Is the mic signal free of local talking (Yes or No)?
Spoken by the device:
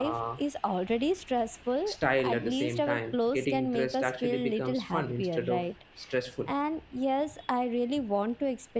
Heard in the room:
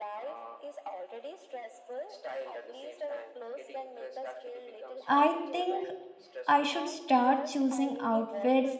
No